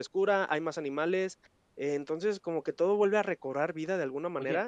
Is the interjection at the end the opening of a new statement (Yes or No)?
Yes